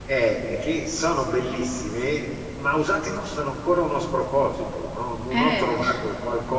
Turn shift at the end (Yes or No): No